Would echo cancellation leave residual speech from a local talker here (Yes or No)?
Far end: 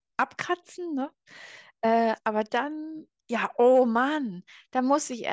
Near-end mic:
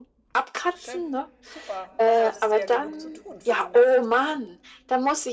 Yes